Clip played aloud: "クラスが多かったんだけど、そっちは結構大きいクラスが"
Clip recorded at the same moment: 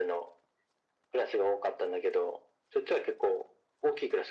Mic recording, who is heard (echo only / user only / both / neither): echo only